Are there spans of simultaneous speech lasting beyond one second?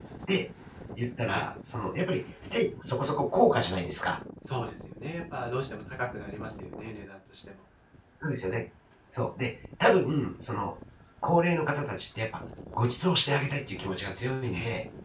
No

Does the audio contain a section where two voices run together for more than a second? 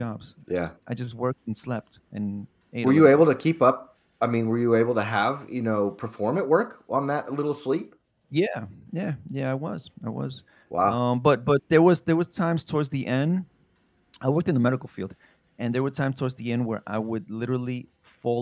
No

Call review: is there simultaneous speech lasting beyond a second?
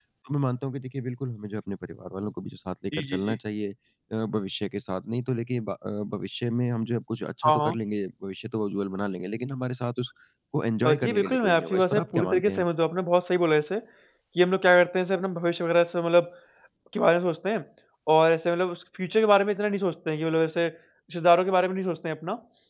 Yes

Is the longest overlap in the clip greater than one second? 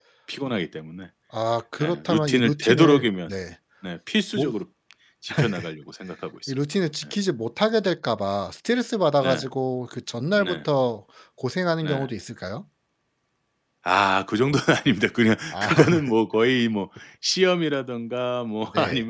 Yes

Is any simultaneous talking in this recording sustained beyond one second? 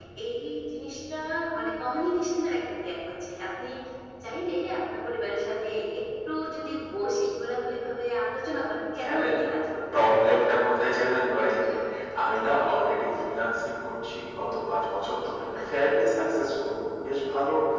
No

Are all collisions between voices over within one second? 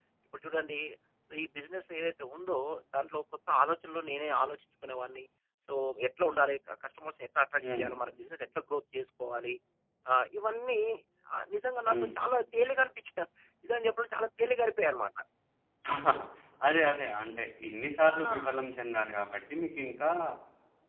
Yes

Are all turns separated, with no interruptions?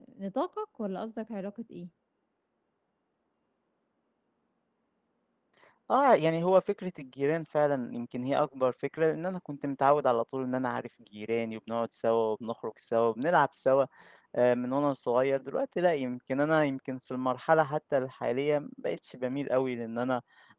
Yes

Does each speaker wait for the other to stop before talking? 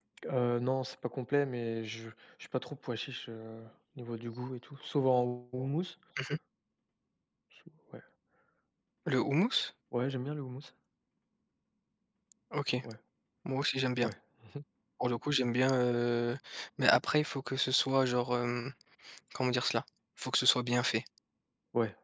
Yes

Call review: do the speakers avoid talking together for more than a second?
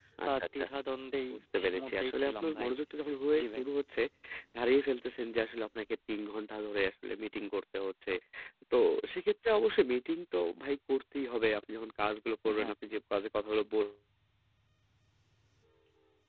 No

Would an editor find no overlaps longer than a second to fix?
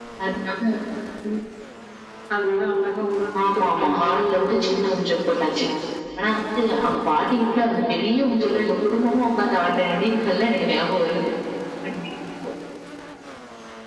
No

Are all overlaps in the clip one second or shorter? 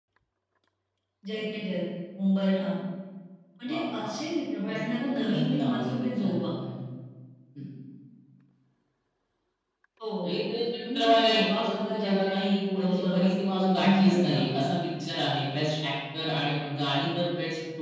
No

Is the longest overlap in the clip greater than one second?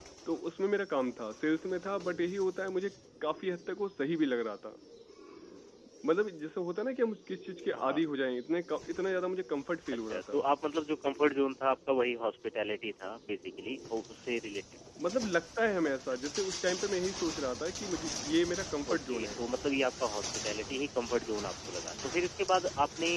No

